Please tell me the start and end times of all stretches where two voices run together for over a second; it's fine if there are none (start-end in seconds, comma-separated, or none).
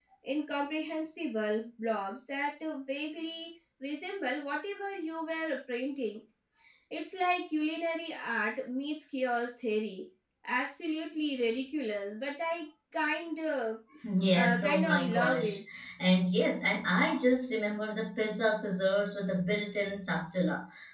14.3-15.6